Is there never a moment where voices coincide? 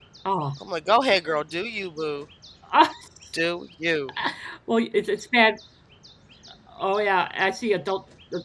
Yes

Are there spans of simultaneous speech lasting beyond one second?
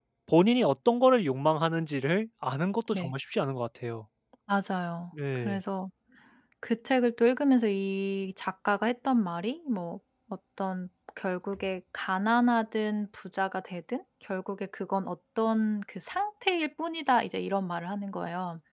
No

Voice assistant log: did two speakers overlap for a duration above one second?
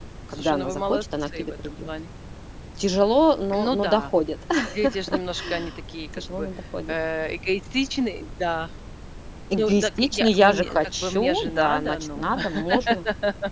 Yes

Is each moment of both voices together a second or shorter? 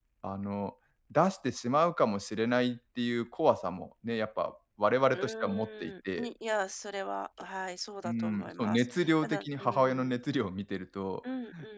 No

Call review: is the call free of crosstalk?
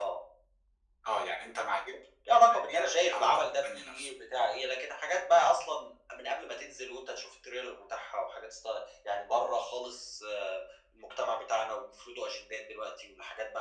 No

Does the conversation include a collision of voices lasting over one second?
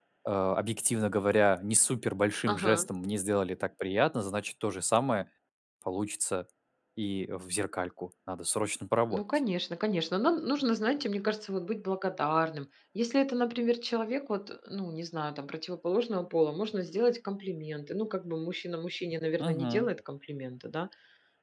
No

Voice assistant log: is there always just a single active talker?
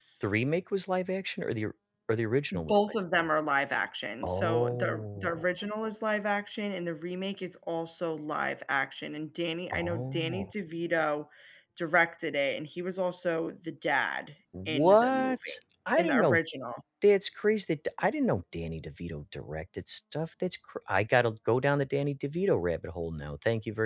No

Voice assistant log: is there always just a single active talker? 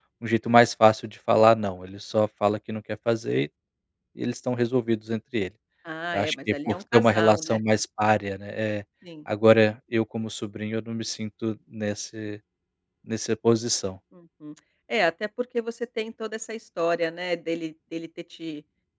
No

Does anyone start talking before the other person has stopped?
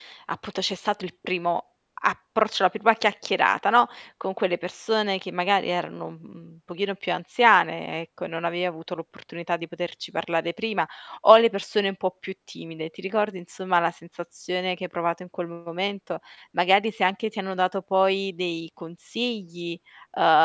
No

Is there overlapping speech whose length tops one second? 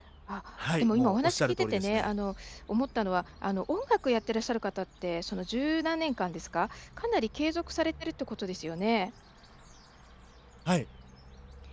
Yes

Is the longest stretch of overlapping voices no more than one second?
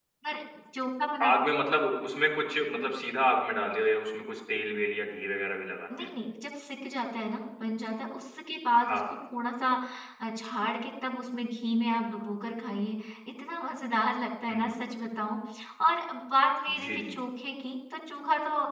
Yes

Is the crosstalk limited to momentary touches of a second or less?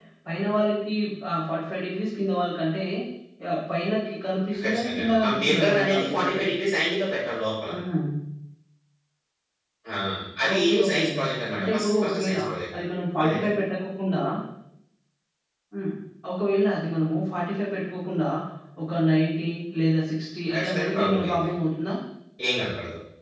No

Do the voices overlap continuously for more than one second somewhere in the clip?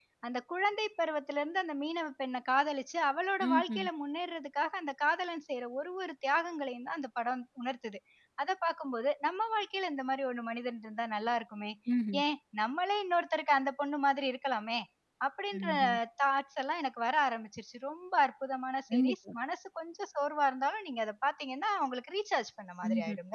No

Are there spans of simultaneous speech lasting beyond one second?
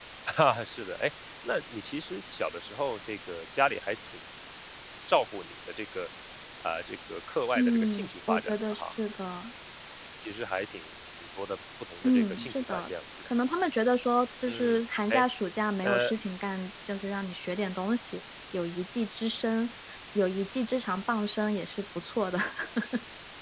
Yes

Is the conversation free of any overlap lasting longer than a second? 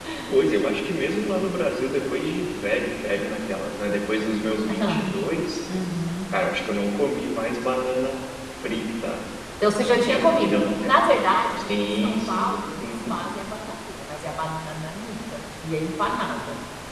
No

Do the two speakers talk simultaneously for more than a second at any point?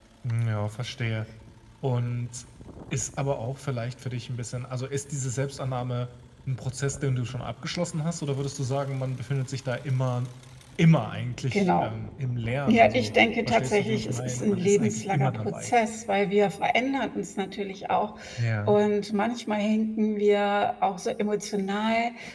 Yes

